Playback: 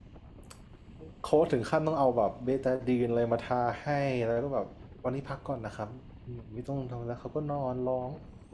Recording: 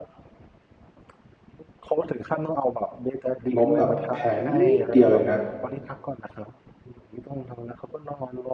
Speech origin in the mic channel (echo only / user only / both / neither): both